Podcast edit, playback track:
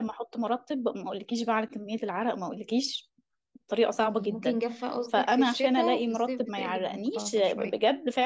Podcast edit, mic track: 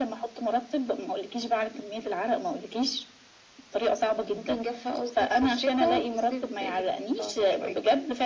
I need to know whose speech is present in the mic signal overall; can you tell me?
echo only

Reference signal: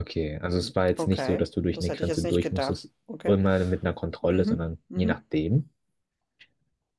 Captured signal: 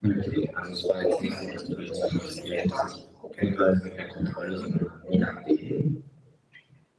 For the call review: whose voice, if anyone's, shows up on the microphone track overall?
echo only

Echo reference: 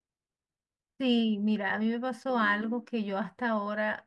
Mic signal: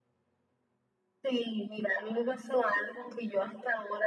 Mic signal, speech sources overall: echo only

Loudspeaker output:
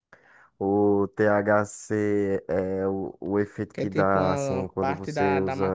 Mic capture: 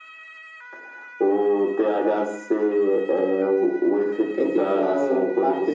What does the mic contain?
echo only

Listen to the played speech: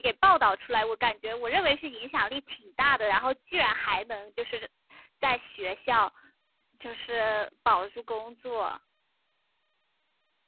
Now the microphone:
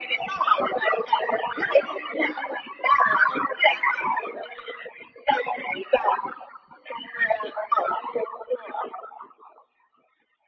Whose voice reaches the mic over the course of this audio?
echo only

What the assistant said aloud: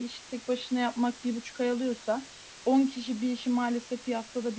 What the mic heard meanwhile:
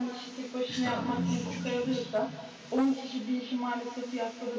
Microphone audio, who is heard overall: both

